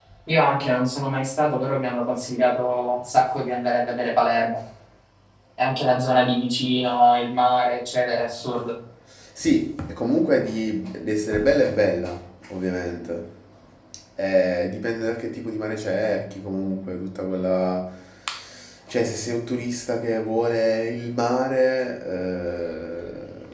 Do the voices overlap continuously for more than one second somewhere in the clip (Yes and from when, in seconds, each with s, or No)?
No